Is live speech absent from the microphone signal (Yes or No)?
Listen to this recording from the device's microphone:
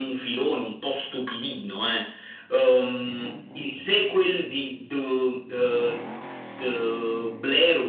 Yes